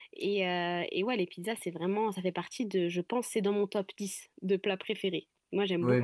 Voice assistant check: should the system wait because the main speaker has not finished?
No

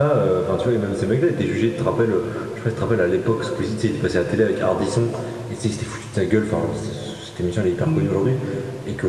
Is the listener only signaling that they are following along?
Yes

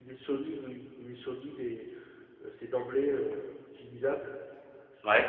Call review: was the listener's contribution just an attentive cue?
Yes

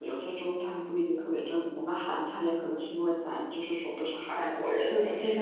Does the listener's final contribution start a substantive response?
Yes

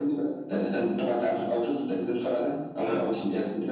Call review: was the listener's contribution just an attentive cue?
Yes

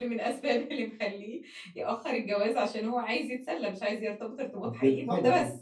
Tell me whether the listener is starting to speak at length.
Yes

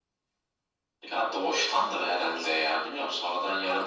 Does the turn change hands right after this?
Yes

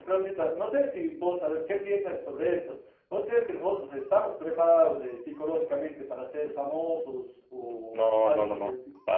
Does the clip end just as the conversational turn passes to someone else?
Yes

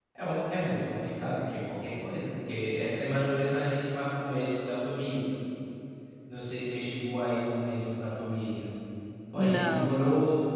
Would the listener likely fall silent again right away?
Yes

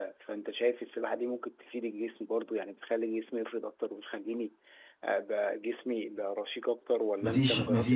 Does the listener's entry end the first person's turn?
Yes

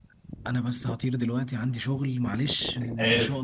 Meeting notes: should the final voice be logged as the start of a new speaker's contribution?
No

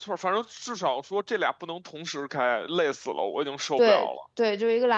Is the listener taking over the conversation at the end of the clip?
Yes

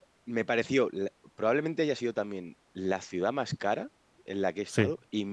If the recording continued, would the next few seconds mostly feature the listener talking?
No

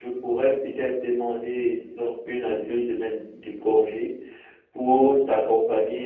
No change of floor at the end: Yes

